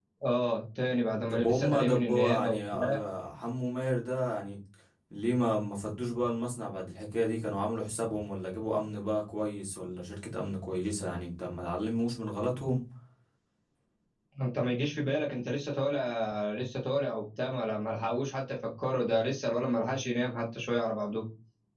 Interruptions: present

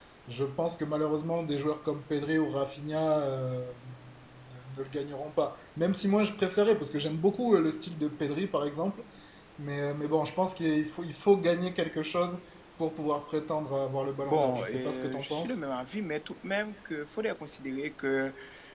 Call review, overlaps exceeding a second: present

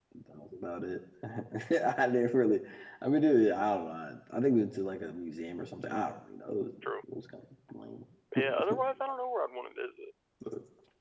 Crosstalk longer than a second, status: none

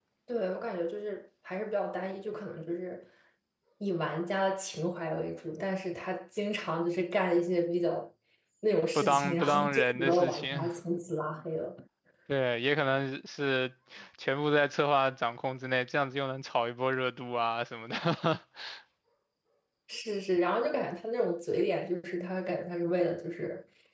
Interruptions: present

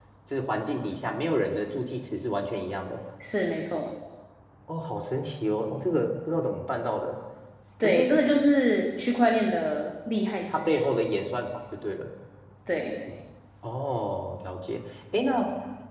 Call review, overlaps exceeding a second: none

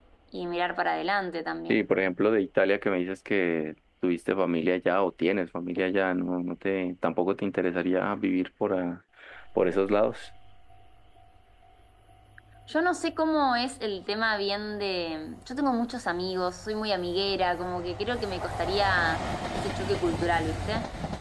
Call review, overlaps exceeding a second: none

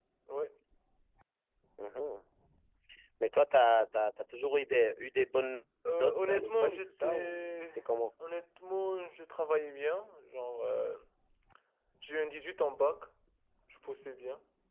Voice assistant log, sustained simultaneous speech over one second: present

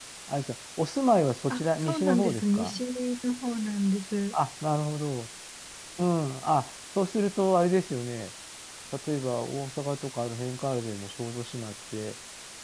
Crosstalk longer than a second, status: present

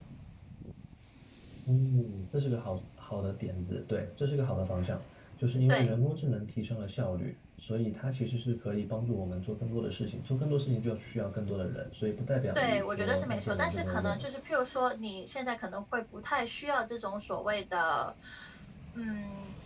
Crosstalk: present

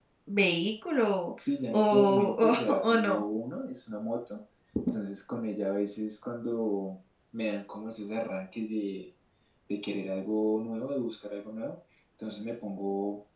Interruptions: present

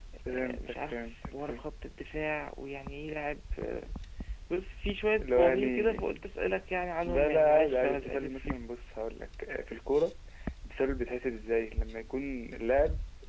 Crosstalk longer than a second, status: present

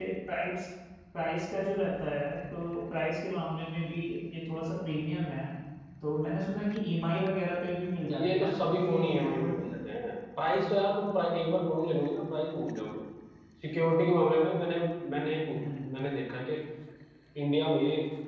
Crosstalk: present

